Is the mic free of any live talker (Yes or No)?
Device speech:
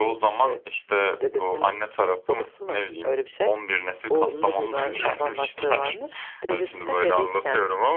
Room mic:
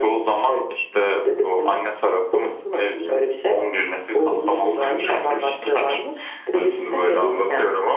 Yes